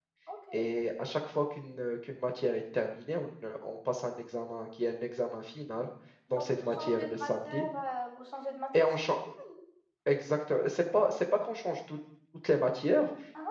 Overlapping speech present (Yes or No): Yes